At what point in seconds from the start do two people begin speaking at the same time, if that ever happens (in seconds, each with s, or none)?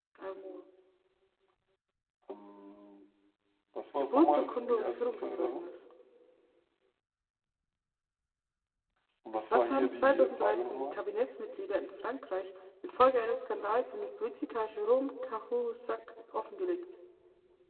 4.0 s